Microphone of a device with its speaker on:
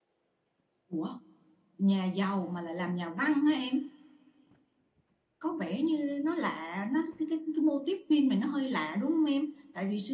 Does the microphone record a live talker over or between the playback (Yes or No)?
No